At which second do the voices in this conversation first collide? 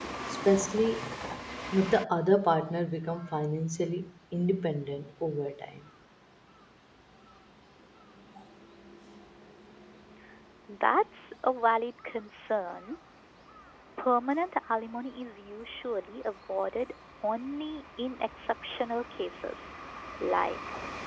none

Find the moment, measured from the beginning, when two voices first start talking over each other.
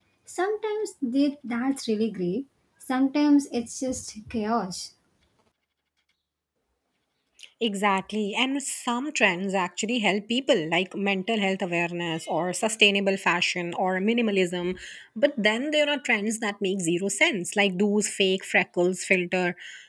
none

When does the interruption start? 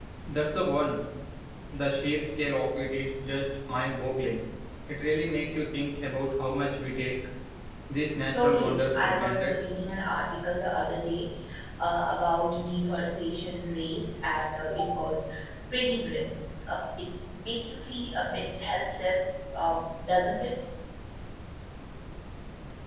8 s

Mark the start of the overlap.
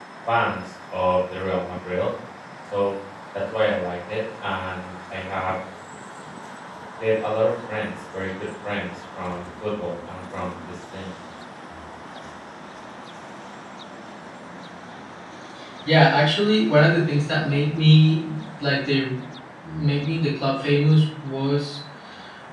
none

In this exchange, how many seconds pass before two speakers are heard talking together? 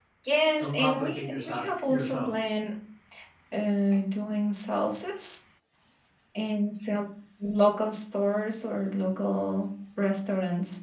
1 s

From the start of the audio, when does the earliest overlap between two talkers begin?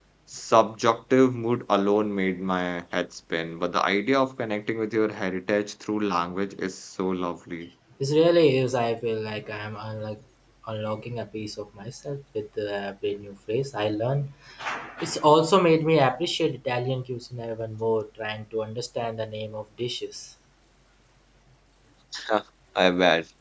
none

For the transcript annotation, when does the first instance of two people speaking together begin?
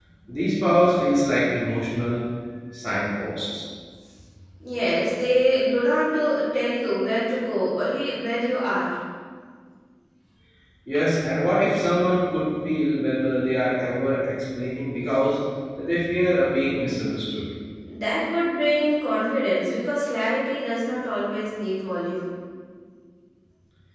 none

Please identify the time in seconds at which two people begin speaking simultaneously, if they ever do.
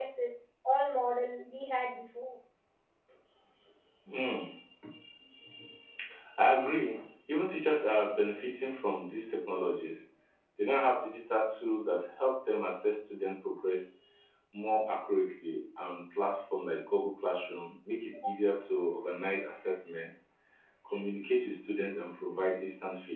none

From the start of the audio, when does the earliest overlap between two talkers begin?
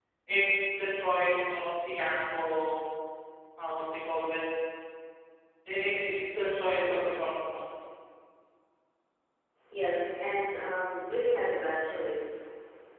none

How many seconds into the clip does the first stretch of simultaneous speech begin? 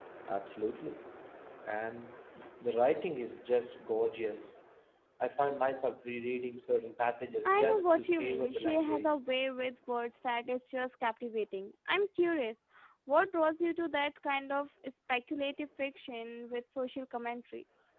7 s

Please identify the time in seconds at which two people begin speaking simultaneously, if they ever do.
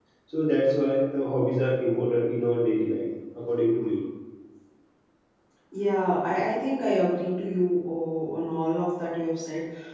none

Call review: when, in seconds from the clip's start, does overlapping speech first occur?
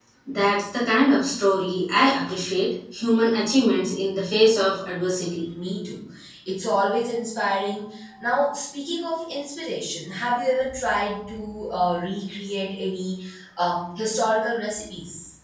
none

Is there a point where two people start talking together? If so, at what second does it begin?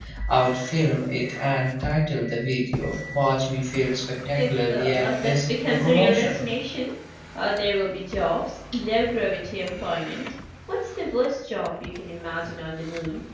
4 s

